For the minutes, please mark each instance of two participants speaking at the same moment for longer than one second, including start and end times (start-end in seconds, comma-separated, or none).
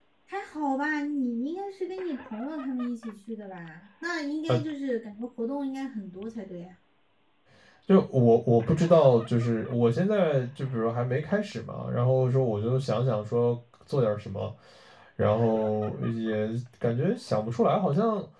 none